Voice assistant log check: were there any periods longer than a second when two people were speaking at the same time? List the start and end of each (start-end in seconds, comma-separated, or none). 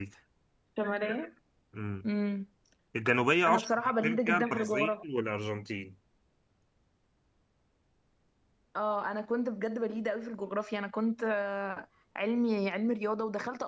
3.5-4.9